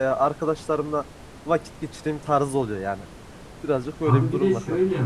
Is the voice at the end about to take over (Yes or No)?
Yes